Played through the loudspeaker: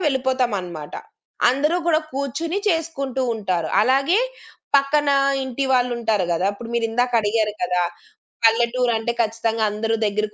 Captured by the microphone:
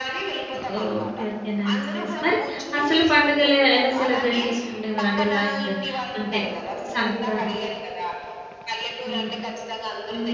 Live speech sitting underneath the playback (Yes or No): No